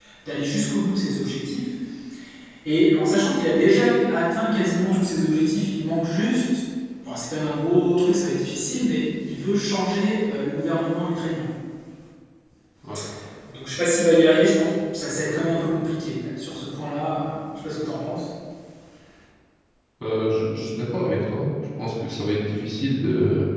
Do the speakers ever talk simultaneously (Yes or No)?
No